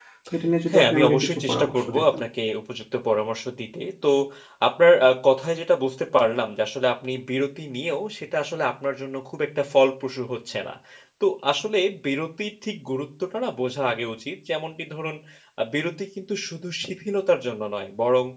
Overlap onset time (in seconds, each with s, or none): 0.7 s